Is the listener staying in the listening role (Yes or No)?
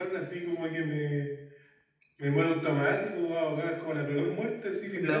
No